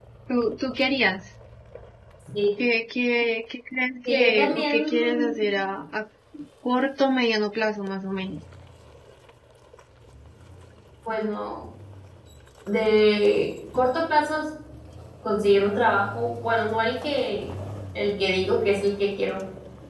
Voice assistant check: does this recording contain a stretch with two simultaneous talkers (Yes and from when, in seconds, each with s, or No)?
Yes, from 4.0 s